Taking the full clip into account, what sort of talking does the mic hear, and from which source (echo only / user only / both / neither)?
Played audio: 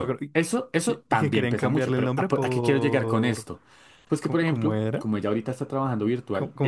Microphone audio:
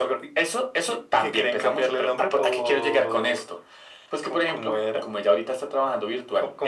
echo only